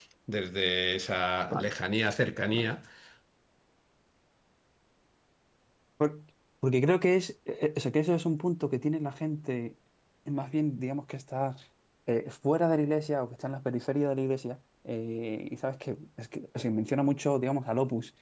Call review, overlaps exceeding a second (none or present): none